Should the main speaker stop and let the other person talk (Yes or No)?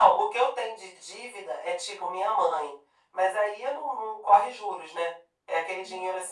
No